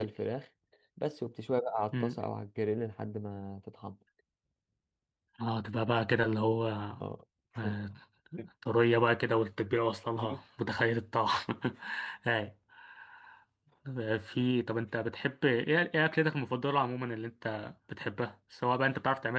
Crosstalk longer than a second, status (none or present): none